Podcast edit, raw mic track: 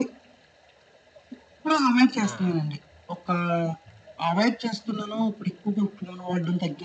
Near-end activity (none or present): present